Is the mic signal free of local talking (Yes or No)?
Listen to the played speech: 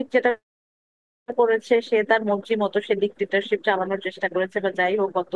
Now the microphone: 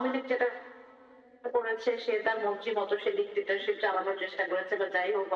Yes